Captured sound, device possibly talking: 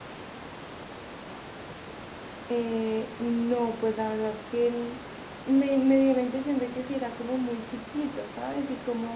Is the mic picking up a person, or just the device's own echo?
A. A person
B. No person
A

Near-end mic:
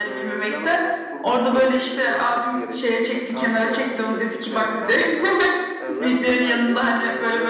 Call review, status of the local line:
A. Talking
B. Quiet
A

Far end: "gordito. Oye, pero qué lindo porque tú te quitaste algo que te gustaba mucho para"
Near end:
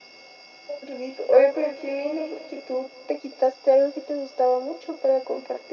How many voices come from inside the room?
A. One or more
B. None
B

